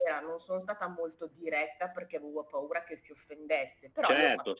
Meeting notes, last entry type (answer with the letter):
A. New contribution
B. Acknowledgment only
A